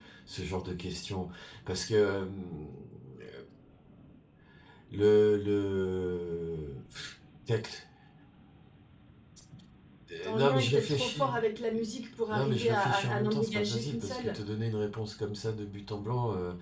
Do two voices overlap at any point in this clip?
Yes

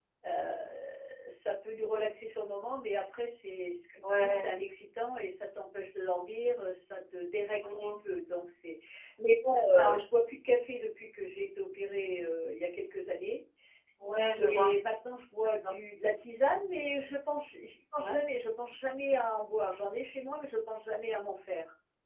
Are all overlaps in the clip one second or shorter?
Yes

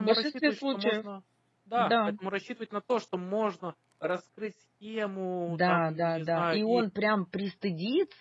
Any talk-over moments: Yes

